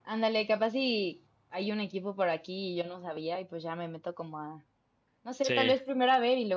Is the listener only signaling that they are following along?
Yes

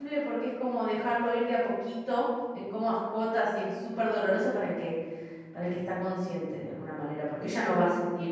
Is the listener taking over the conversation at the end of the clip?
No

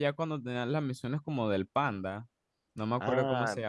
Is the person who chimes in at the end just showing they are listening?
No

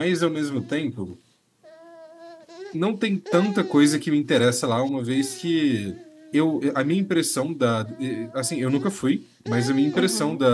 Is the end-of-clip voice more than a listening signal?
No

